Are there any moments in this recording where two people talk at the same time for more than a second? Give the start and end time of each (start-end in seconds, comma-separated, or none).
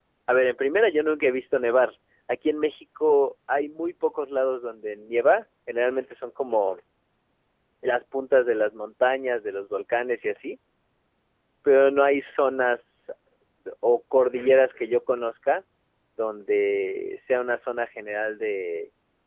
none